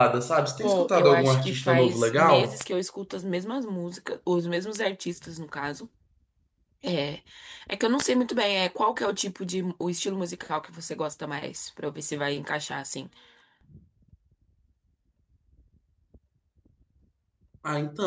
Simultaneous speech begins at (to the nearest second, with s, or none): 1 s